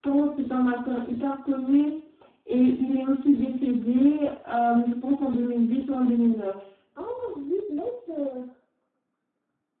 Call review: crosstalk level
none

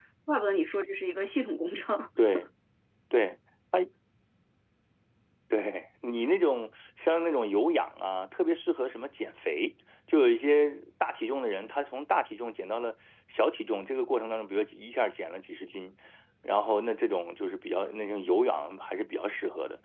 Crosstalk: none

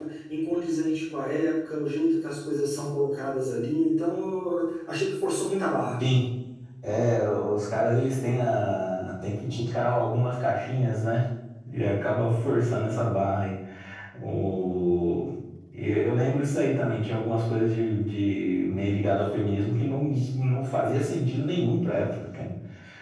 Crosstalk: none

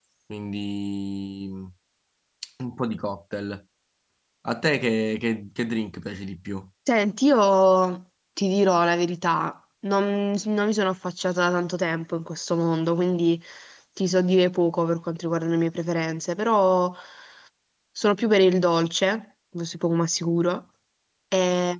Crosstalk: none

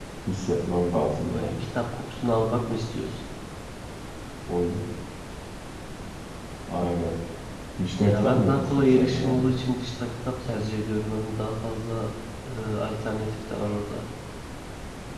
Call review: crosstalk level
present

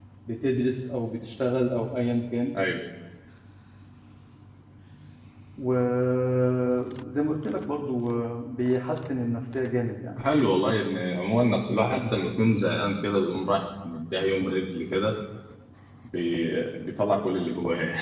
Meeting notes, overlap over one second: none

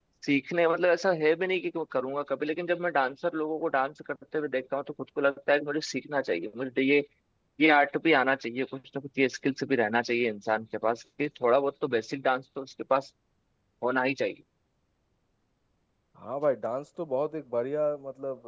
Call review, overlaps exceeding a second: none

